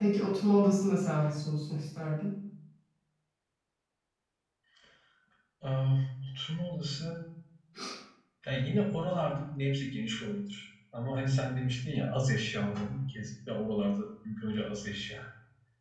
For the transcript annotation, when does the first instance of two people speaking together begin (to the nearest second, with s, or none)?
none